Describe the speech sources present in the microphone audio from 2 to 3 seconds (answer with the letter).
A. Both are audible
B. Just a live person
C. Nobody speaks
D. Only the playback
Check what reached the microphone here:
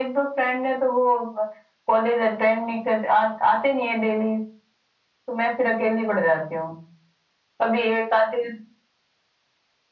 D